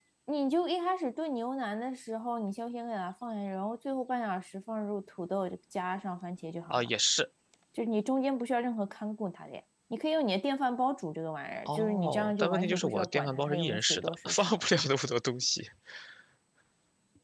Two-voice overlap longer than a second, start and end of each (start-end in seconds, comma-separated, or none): 11.6-14.6